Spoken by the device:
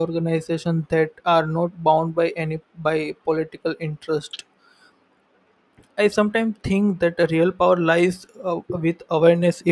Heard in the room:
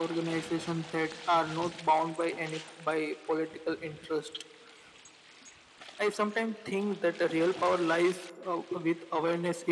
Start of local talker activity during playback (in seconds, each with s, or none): none